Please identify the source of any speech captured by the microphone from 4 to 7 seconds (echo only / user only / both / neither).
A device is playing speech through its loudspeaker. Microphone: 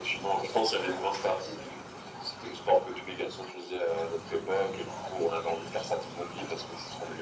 echo only